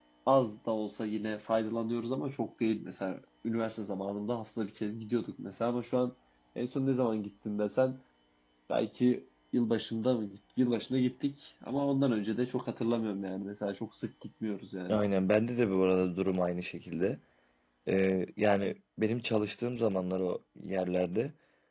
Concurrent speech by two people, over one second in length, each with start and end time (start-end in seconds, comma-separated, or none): none